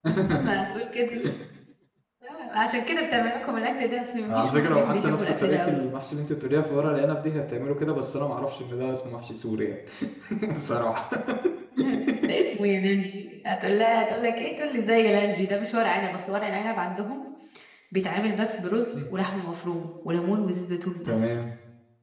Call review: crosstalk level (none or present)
present